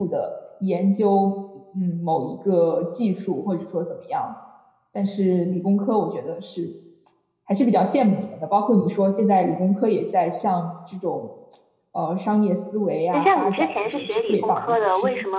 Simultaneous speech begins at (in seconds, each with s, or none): 13.1 s